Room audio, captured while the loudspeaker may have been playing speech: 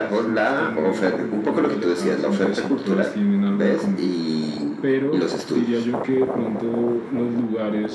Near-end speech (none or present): none